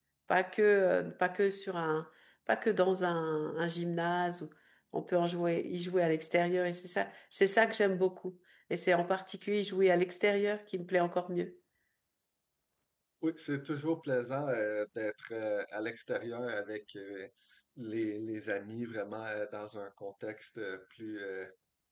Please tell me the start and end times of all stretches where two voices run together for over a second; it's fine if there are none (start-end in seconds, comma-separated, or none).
none